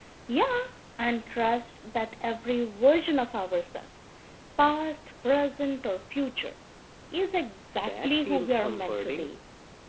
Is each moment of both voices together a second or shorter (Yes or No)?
No